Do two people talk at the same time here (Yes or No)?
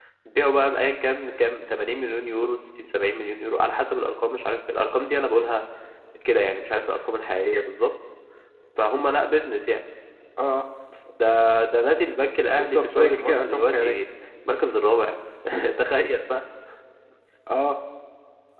Yes